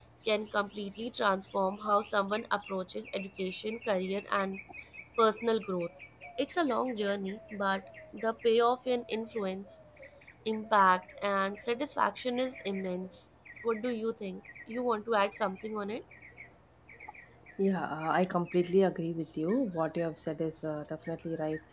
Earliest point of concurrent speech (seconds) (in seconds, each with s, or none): none